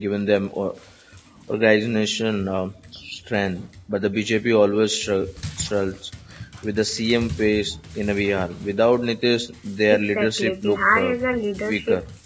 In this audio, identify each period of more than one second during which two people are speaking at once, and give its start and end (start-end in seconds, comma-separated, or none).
9.9-11.1